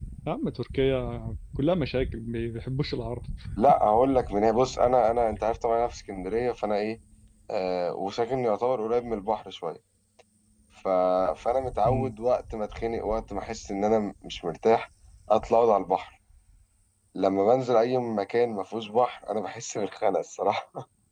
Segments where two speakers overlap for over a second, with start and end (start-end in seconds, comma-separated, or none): none